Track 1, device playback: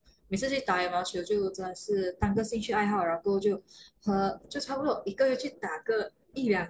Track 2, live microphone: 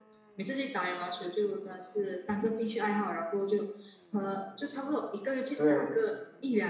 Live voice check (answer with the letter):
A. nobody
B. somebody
B